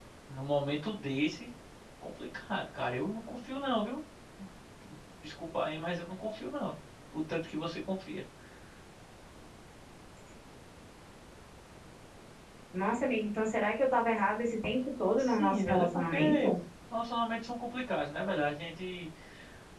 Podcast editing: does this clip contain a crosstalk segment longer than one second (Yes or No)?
Yes